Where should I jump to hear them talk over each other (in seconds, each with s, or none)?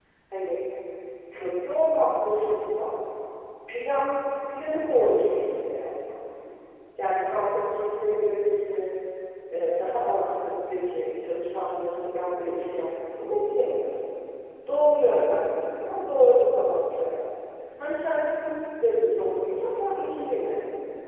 none